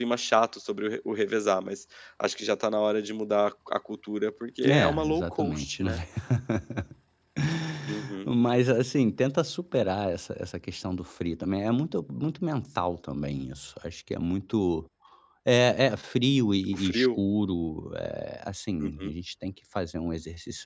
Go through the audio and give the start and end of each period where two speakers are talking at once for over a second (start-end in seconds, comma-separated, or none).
4.7-5.9